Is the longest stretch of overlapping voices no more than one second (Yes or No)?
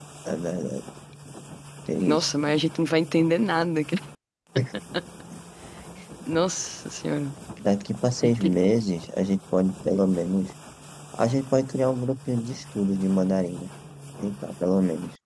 Yes